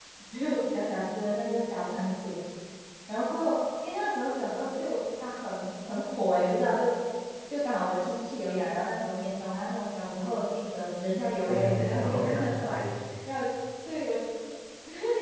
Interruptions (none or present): present